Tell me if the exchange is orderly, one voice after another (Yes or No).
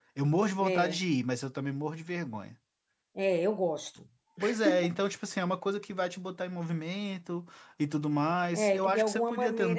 No